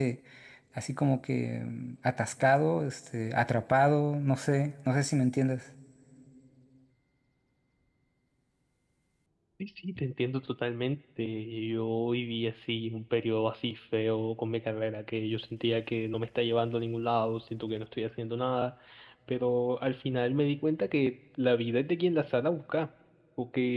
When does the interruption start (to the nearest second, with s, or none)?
none